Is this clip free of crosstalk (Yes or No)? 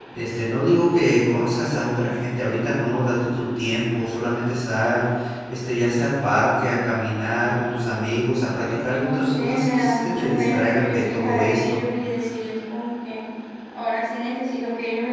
No